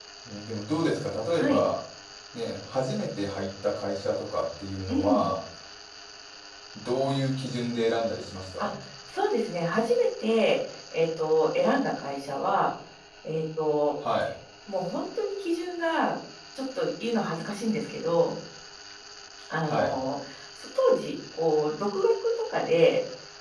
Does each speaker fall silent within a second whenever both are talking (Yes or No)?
Yes